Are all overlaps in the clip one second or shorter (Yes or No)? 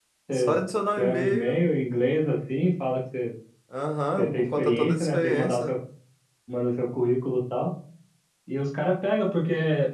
No